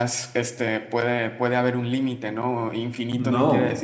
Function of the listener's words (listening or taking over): listening